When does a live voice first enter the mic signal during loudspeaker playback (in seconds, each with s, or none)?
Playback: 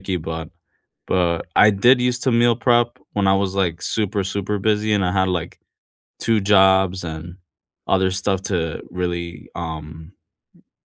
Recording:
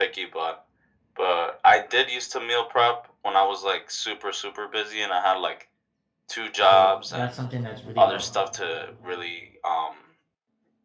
6.6 s